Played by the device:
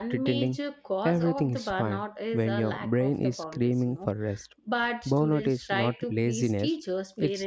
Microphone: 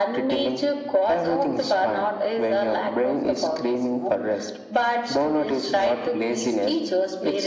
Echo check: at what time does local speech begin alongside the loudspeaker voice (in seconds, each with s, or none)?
none